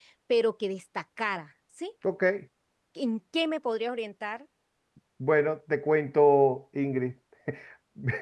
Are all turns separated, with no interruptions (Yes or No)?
Yes